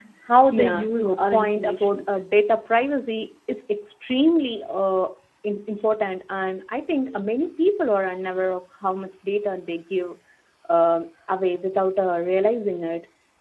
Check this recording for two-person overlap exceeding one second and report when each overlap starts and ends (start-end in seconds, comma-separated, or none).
0.5-2.0